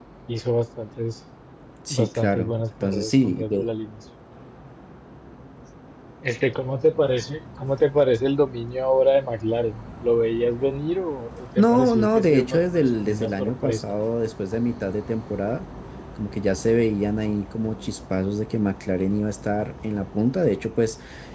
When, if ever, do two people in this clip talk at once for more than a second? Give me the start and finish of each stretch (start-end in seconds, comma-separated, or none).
1.9-3.6, 11.6-13.8